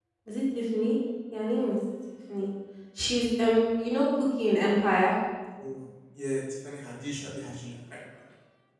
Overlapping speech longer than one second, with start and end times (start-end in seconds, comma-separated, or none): none